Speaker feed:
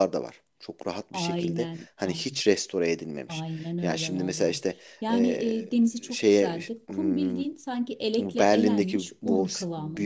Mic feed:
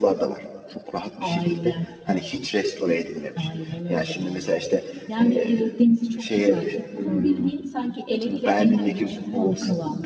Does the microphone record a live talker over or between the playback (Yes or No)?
No